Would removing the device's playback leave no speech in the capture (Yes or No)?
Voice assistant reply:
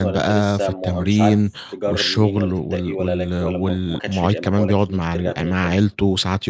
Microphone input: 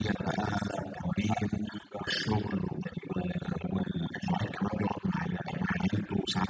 Yes